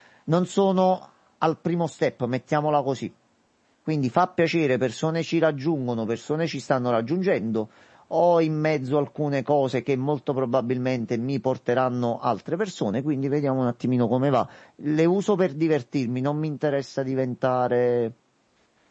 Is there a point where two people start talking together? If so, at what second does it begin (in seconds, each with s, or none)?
none